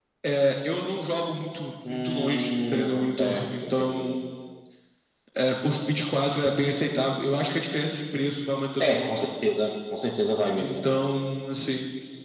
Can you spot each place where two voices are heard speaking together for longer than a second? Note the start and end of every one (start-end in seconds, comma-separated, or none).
1.9-4.1